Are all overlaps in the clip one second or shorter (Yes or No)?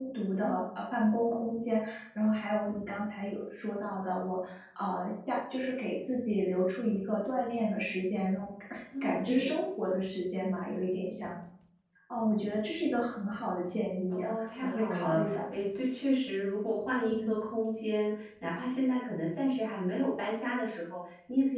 No